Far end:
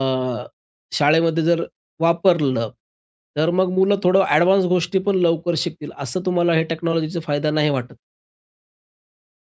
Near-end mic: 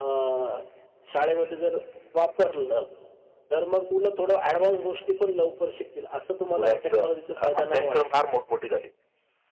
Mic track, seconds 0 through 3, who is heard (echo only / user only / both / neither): echo only